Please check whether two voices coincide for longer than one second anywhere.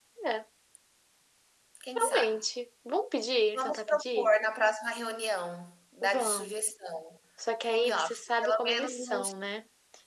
Yes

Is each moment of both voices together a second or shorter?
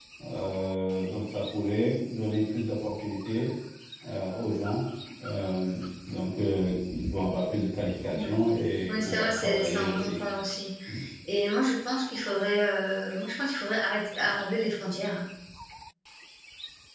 No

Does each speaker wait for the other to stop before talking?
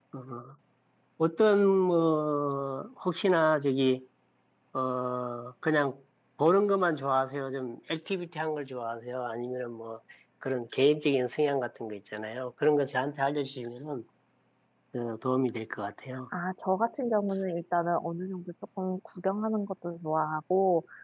Yes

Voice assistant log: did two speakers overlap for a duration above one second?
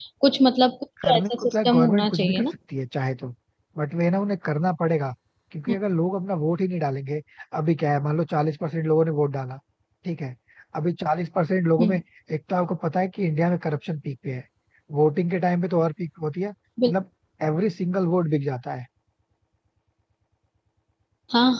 Yes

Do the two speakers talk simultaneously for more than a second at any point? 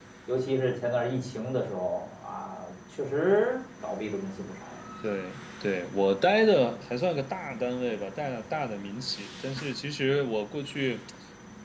No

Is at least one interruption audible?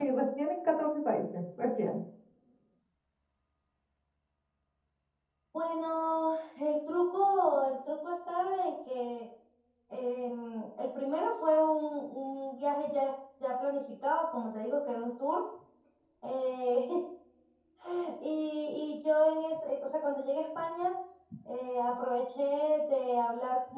No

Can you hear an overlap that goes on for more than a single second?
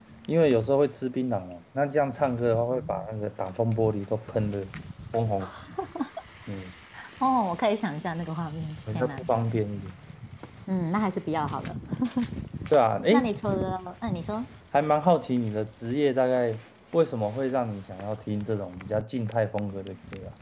No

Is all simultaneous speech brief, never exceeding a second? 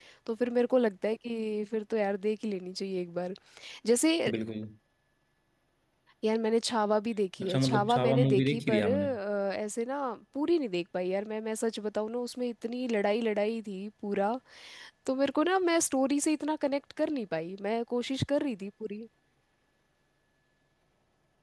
No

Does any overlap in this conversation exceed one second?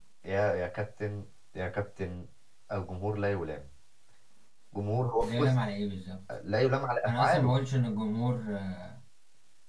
No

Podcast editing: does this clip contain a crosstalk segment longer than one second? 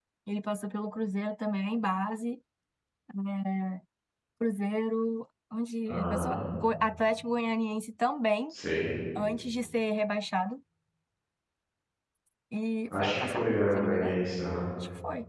Yes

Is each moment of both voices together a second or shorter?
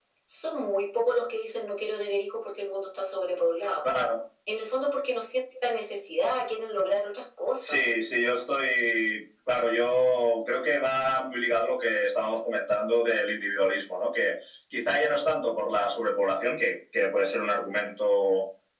Yes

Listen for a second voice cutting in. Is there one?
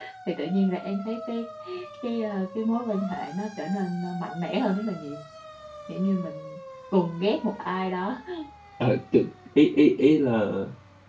No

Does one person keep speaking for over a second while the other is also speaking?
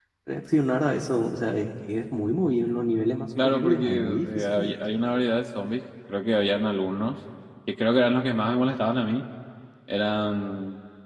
Yes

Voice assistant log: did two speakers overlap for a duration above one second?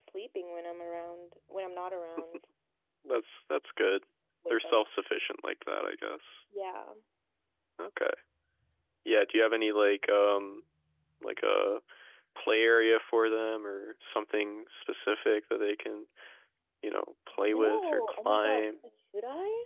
Yes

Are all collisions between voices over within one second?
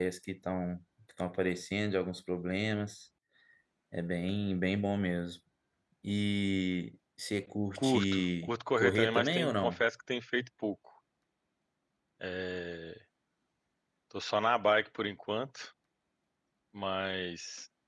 No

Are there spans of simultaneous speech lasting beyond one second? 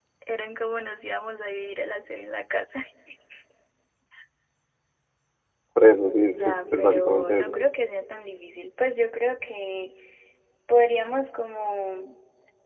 Yes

